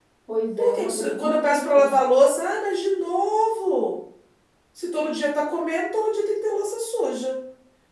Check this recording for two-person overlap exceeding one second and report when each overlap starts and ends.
0.6-1.9

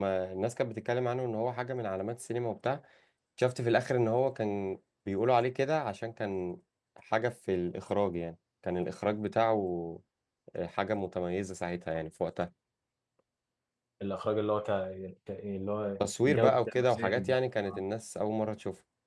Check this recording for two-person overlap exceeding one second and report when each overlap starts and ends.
16.0-17.4

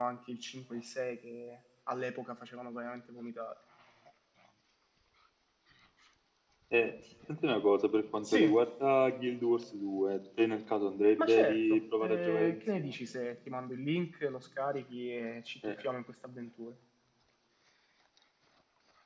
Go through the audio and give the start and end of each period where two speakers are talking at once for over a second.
11.2-13.0

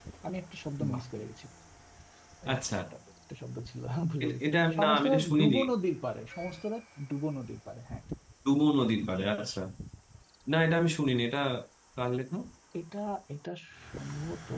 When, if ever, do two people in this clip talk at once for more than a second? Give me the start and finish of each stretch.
4.2-5.6

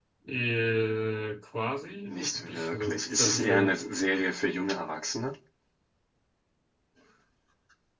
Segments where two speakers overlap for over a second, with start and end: 2.1-3.7

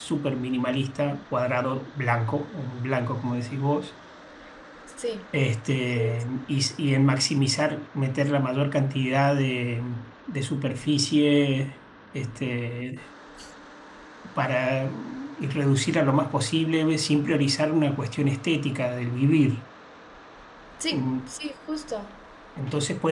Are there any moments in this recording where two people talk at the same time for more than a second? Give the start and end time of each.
none

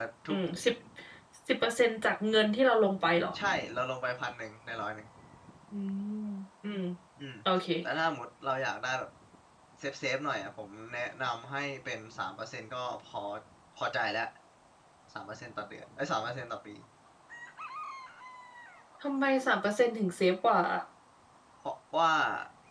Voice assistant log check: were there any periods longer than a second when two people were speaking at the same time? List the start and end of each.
none

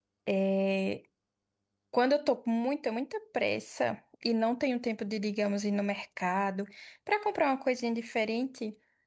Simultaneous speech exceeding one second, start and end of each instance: none

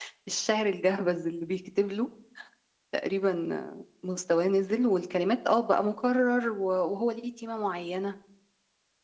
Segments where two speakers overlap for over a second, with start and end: none

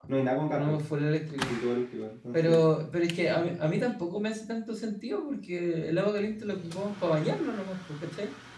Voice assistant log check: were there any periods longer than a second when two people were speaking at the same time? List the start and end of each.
none

